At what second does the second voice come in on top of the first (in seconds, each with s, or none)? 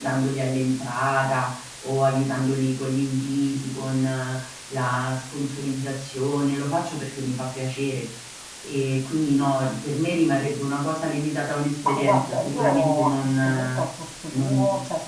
11.8 s